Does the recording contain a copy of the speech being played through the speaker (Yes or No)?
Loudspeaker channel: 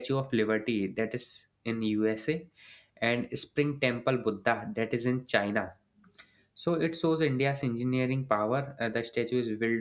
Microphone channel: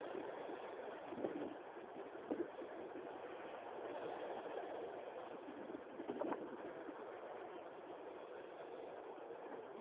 No